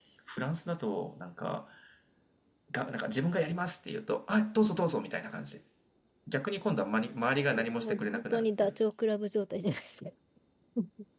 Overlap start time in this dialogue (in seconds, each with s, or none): 7.5 s